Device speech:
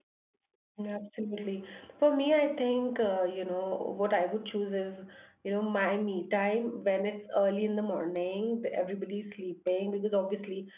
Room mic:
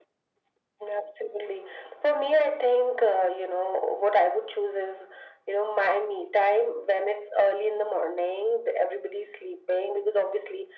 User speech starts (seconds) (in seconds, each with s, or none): none